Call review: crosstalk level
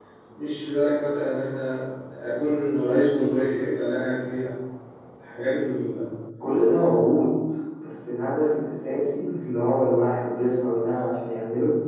none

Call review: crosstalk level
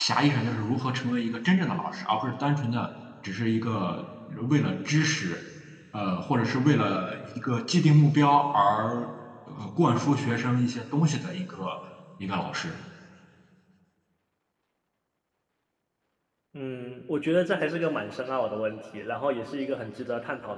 none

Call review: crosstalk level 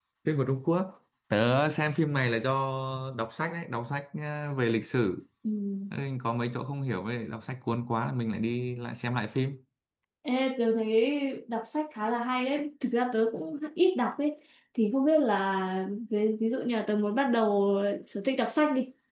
none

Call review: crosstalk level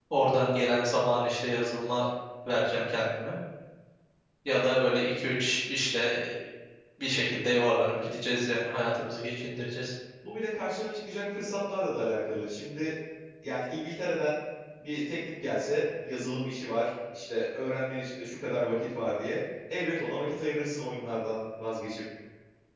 none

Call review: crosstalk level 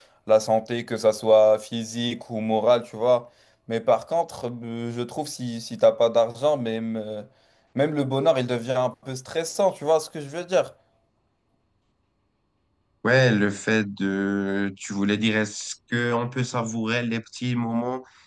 none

